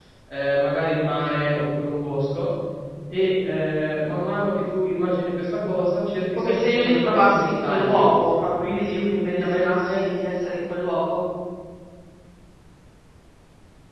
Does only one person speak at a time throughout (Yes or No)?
No